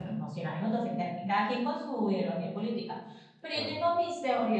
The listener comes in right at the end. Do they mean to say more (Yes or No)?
No